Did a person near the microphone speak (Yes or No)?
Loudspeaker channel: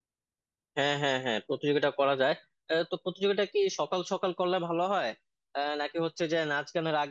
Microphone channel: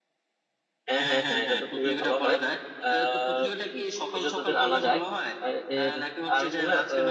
Yes